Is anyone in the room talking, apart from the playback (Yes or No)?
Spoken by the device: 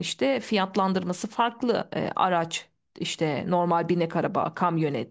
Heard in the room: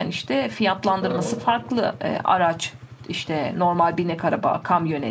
Yes